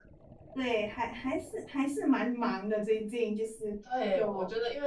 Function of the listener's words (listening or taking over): taking over